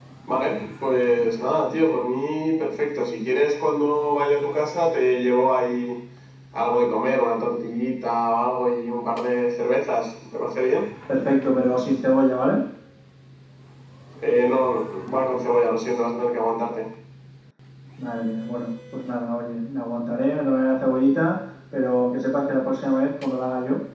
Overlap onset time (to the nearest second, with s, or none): none